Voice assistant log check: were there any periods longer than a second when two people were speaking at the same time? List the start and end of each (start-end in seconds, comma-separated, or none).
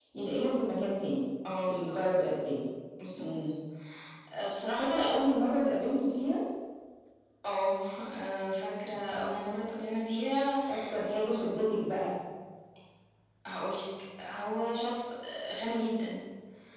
none